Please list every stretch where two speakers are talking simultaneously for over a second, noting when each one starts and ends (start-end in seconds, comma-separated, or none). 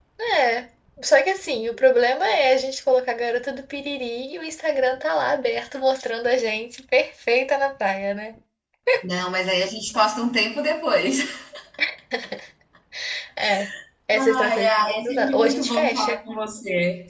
14.4-16.2